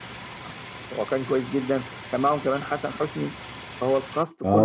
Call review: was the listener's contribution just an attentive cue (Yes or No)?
No